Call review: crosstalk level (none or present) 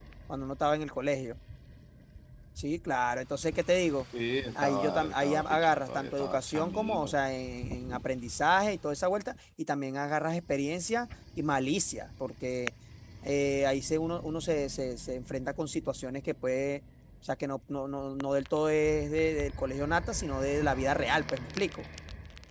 present